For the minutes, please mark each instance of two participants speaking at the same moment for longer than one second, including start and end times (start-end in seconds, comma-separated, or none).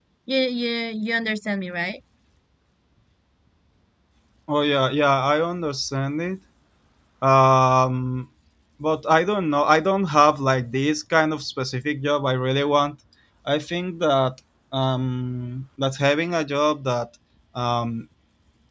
none